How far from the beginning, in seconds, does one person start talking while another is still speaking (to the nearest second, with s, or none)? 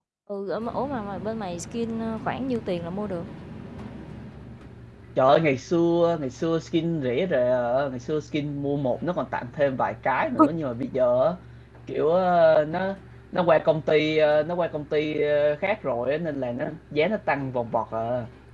none